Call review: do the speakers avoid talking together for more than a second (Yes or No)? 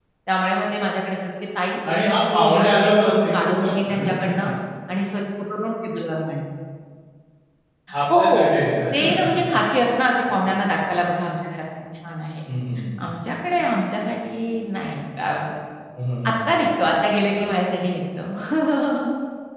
No